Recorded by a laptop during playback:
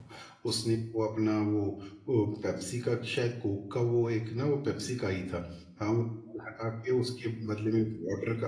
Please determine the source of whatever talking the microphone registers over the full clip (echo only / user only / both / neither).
user only